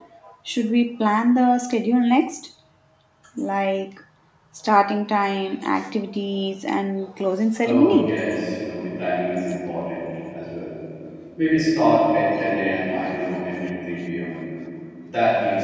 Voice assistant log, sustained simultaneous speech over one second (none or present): none